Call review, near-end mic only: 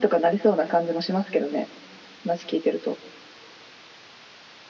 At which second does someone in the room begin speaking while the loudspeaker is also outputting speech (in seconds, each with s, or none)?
none